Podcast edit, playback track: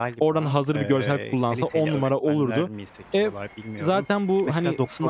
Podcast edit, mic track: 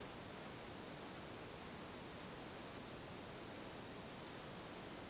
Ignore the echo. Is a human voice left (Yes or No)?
No